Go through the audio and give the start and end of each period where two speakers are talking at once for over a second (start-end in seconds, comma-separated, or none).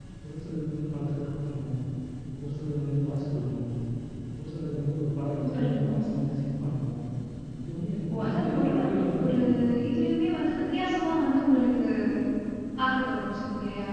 8.1-9.4